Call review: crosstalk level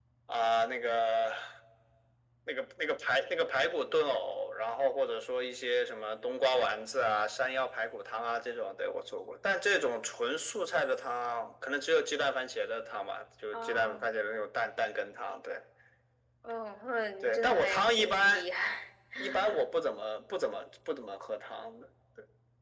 present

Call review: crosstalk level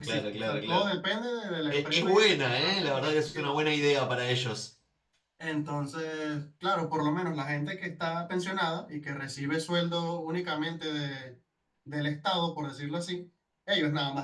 present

